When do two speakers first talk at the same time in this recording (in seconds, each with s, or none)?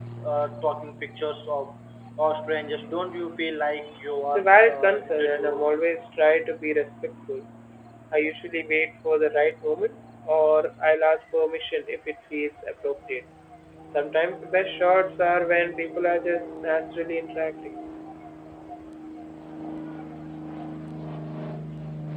4.3 s